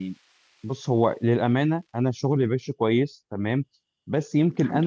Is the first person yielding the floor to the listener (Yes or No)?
No